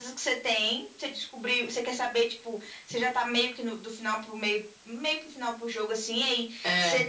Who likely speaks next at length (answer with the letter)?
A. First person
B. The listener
A